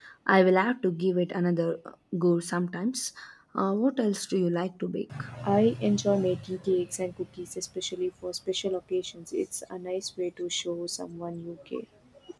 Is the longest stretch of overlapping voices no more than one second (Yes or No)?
Yes